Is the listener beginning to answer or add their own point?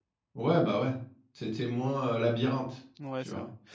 Yes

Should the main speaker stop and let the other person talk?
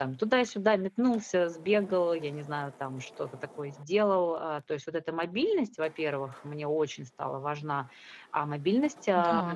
No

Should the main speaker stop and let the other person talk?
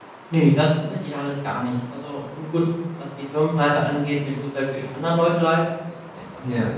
No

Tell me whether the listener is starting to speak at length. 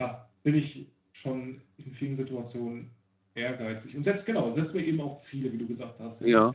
Yes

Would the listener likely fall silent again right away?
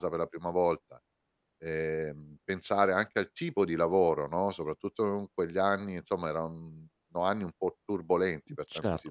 No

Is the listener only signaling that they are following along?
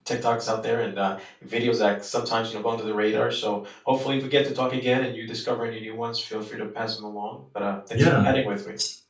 No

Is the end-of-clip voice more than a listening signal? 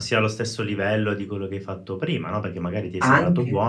No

